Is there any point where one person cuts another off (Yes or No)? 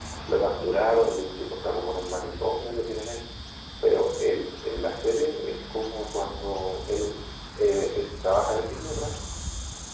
No